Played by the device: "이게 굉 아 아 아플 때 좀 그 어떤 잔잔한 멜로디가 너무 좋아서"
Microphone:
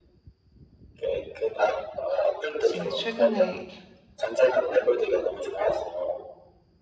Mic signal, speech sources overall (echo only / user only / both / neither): both